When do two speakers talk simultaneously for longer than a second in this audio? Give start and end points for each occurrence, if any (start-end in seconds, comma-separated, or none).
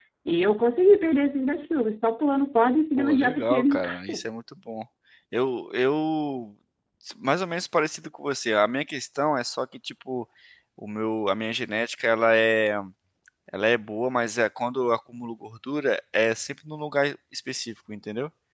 3.0-4.2